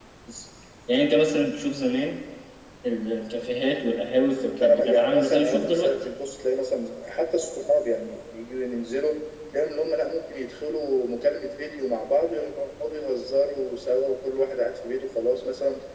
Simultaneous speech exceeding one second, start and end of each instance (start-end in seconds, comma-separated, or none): 4.3-5.9